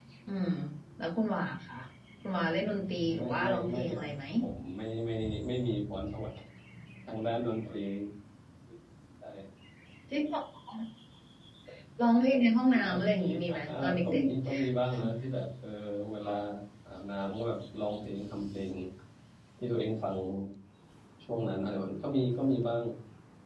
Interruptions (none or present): present